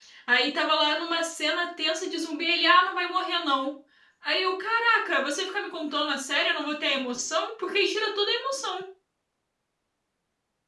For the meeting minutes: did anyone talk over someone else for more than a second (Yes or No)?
No